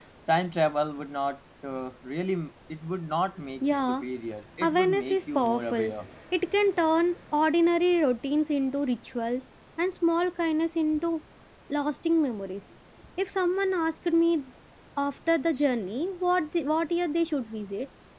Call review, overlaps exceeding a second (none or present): present